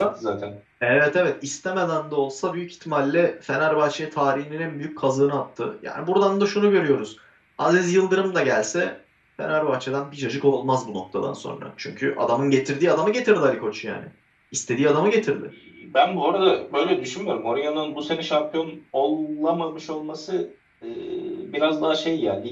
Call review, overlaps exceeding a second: none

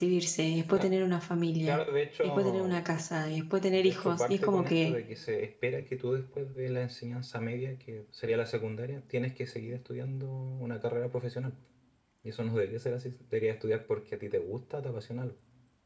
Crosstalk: present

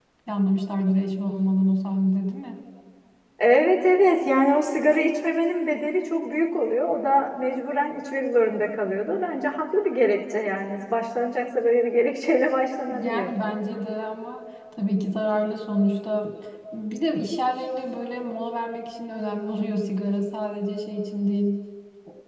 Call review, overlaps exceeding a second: none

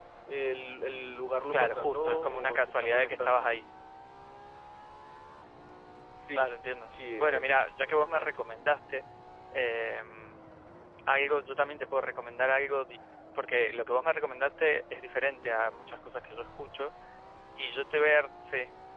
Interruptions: present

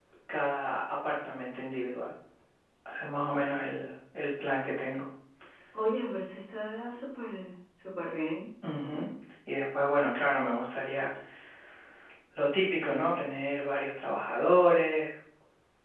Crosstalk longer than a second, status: none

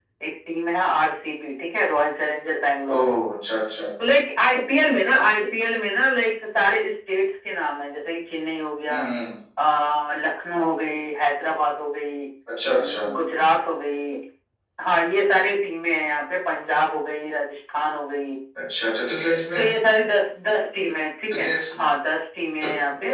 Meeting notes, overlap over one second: none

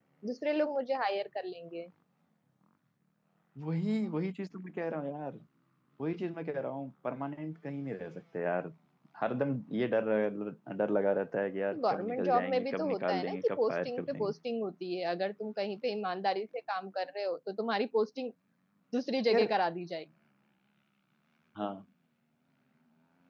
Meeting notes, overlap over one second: present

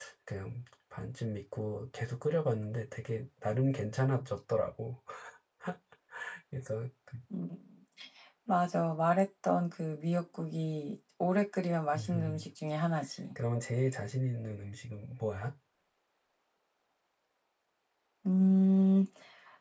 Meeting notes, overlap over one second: none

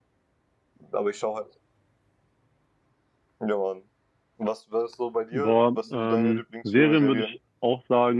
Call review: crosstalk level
present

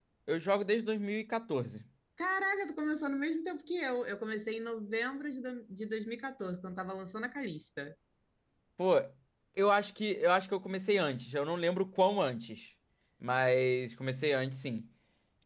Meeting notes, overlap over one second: none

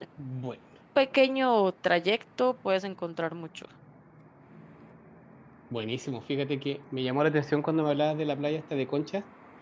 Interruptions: none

